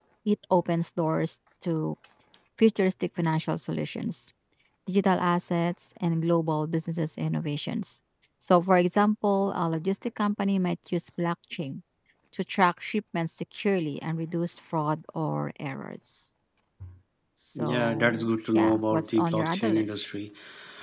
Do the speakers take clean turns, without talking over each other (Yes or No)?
No